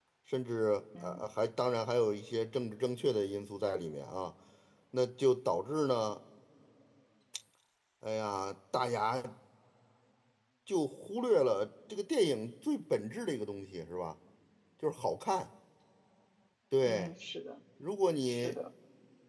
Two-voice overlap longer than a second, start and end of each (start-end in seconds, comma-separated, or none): none